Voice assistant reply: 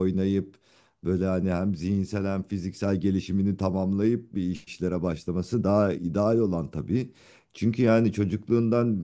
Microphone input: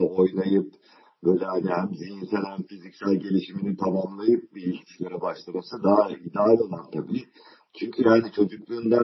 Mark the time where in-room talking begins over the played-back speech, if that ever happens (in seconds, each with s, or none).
none